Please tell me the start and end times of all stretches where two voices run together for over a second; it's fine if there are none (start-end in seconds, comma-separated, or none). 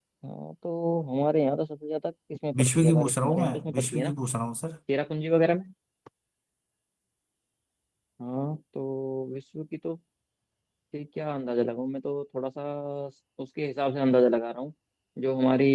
2.5-4.1